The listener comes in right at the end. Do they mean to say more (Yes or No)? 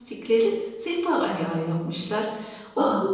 No